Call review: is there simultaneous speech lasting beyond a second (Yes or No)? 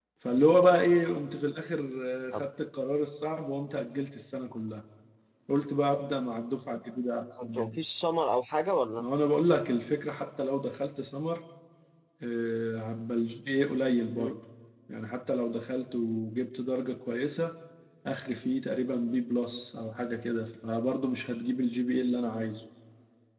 No